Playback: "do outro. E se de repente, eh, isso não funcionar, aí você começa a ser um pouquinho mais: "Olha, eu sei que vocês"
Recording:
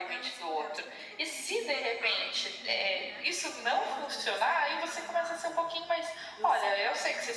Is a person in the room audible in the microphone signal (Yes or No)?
Yes